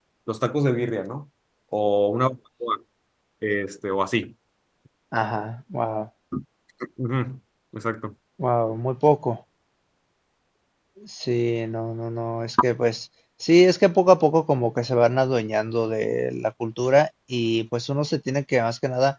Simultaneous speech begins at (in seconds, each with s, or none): none